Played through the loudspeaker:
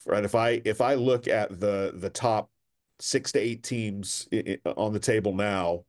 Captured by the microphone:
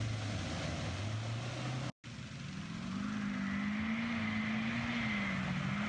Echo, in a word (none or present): none